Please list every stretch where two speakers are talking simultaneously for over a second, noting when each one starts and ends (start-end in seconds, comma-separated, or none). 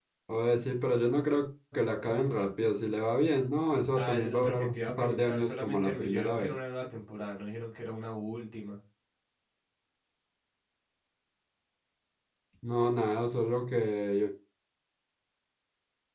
3.9-6.6